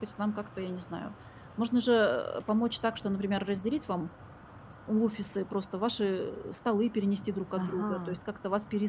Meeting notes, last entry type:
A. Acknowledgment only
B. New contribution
A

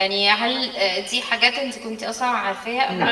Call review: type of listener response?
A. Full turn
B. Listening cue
B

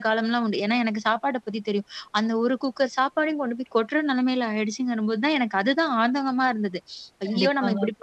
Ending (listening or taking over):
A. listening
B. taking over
B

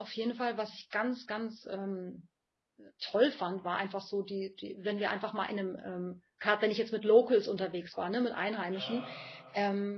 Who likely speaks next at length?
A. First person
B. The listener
A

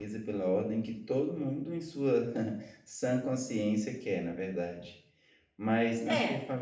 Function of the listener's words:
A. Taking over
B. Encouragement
B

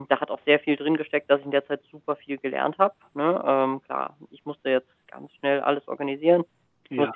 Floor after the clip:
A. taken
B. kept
B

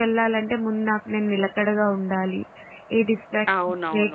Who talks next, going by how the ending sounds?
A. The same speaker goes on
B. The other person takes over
B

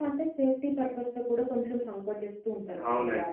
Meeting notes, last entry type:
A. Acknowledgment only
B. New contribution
B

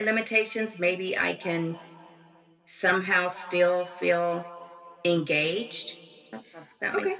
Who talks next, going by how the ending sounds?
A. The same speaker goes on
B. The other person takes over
B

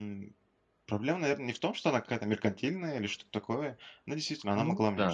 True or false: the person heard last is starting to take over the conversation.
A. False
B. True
A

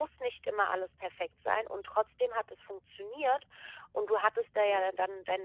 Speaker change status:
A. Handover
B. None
B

